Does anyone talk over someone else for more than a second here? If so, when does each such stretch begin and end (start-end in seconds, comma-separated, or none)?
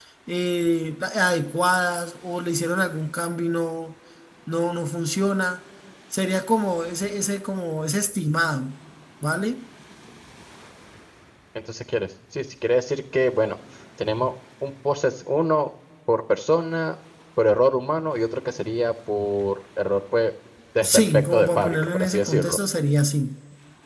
20.8-22.6